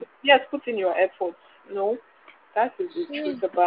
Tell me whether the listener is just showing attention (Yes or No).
No